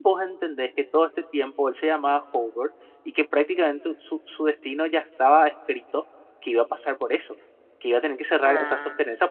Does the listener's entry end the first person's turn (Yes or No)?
No